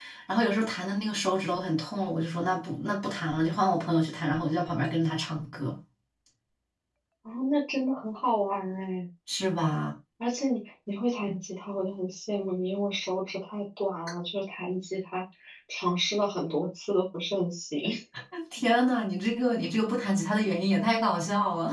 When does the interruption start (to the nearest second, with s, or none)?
none